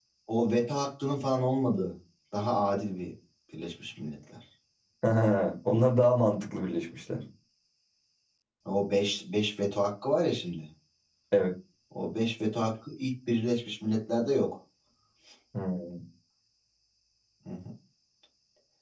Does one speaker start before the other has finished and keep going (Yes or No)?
No